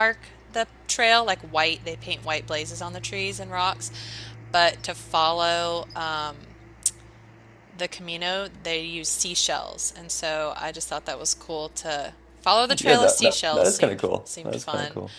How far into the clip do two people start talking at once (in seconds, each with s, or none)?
12.7 s